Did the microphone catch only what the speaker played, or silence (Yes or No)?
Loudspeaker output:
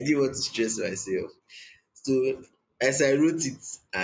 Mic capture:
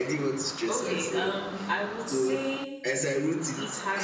No